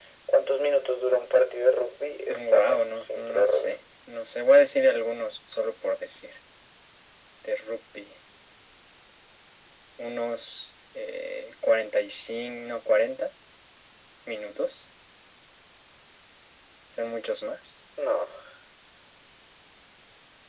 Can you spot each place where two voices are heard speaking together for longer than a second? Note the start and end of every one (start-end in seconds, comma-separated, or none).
2.3-3.7